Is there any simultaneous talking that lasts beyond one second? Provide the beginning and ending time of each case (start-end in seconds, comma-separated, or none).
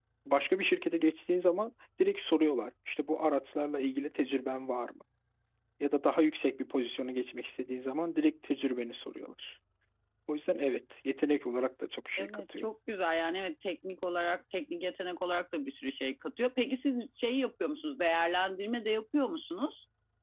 none